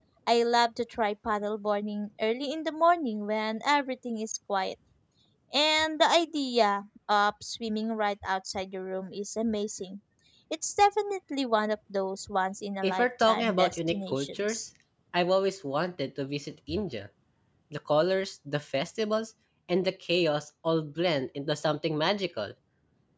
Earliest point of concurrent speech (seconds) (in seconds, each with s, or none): 12.8 s